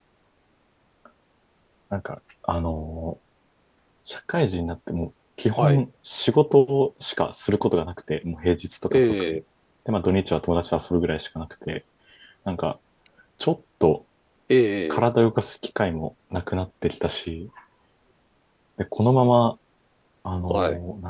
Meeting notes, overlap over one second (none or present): none